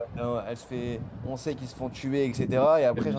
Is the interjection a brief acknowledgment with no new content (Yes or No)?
Yes